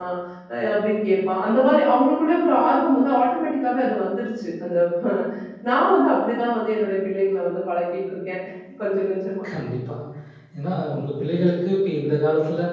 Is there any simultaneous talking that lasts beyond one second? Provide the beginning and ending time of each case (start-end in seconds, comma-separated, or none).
none